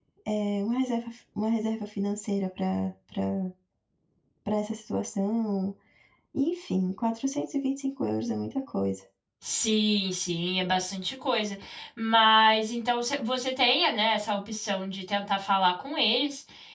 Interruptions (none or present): none